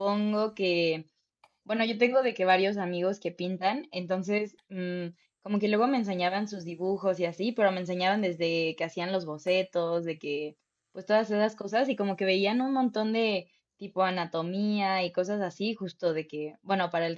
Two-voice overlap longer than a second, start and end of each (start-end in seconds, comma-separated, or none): none